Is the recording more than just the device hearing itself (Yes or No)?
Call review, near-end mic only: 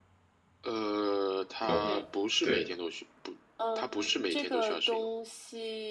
Yes